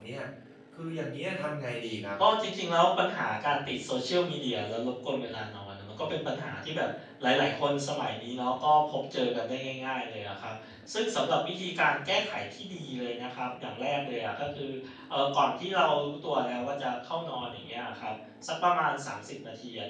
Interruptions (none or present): none